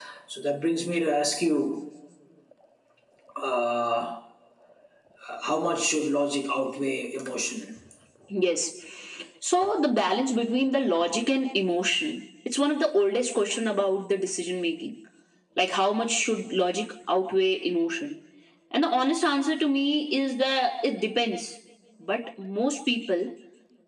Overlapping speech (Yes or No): No